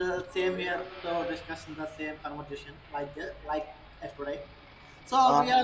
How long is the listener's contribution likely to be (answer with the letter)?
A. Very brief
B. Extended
A